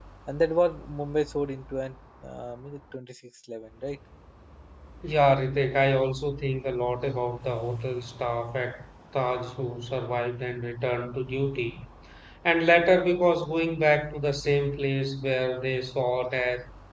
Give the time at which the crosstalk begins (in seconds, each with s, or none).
none